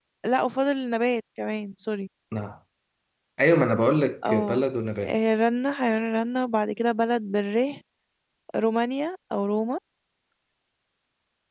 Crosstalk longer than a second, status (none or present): none